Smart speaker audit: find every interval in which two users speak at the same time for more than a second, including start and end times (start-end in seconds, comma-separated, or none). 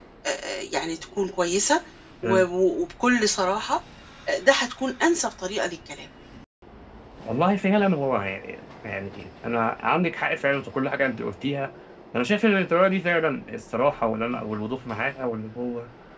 none